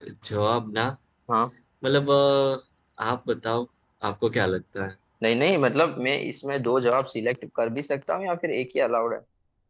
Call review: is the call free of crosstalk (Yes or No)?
Yes